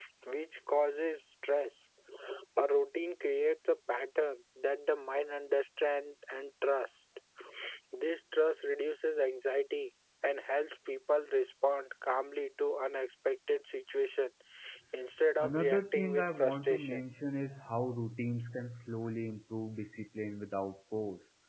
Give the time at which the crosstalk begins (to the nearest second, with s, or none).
15 s